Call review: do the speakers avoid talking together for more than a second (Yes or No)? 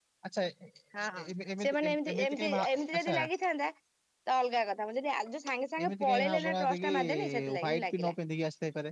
No